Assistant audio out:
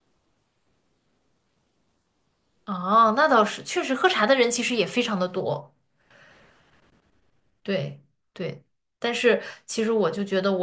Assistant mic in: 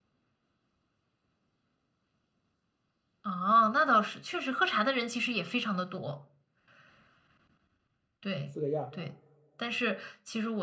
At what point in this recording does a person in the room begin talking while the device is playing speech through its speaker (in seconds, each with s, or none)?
8.4 s